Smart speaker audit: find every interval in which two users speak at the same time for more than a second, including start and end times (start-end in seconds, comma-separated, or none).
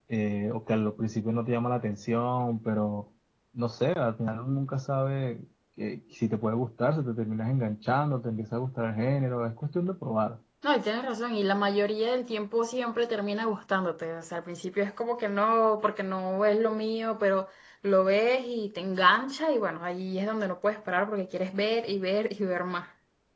none